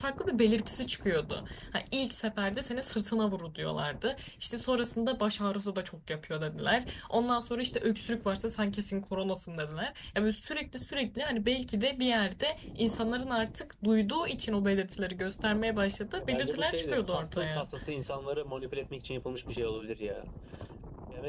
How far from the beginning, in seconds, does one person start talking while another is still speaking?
16.2 s

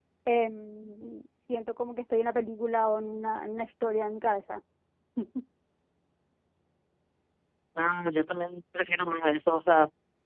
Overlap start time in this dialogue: none

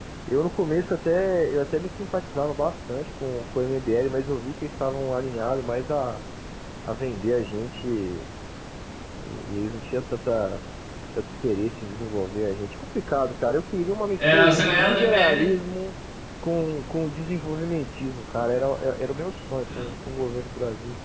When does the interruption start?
14.2 s

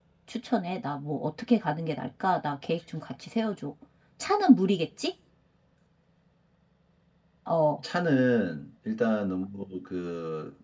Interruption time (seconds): none

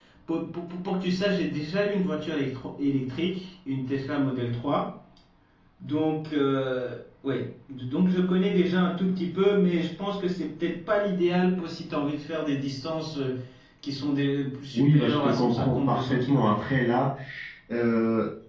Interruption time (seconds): 14.7 s

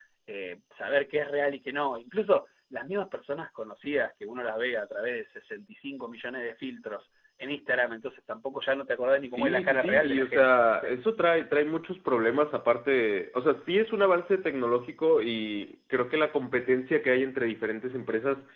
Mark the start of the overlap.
9.2 s

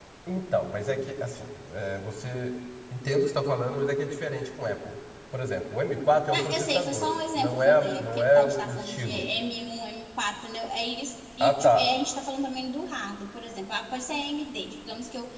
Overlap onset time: 6.3 s

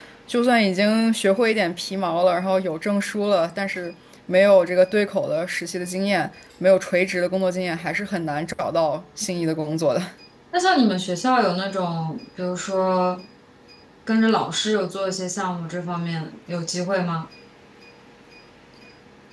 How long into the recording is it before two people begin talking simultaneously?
none

